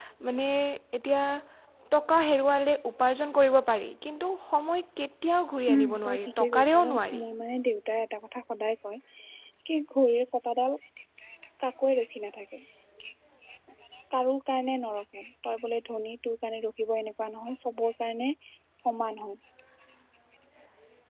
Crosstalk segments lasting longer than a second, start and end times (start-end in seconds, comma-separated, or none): 5.7-7.2